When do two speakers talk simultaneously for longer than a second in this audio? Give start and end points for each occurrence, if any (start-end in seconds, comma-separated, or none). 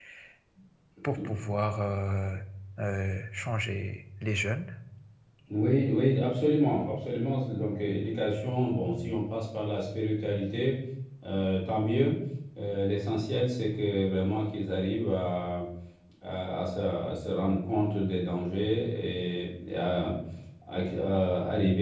none